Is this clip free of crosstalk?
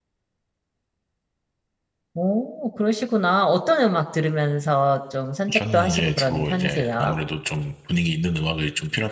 No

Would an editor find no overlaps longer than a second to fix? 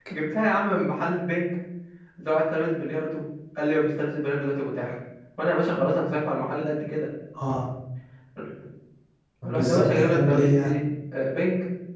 No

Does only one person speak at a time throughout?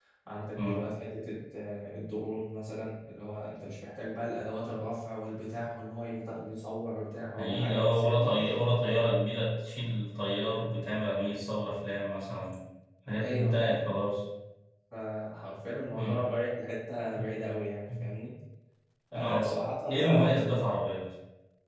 No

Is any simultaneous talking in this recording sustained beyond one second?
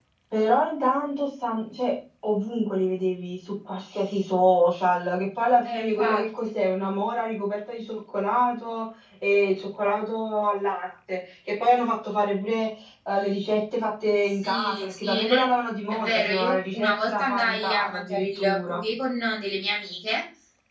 Yes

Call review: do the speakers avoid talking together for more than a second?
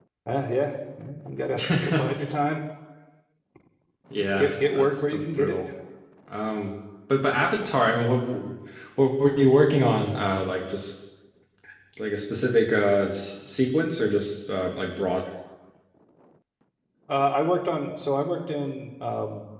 No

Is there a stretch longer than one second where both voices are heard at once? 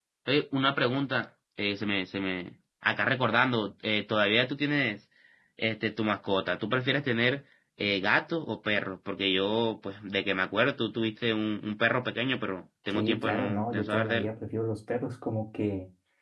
Yes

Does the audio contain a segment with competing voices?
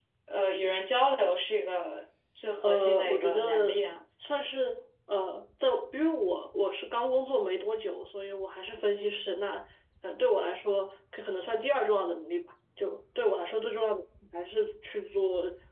Yes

